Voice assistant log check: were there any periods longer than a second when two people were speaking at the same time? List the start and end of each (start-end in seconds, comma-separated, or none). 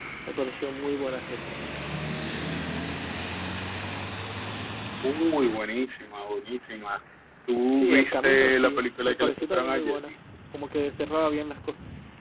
7.7-10.1